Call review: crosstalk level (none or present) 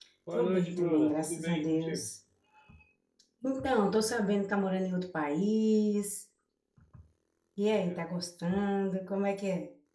present